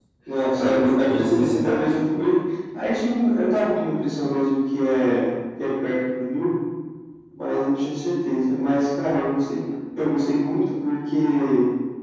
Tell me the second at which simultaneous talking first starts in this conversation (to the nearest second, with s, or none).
1 s